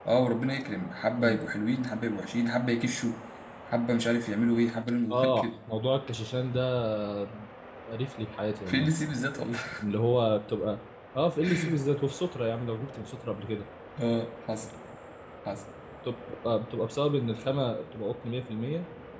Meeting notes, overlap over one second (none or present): none